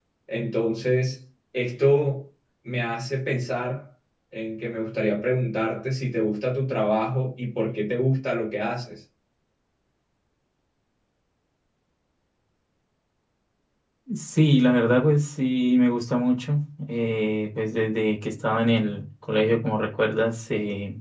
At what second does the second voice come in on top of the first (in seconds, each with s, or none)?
none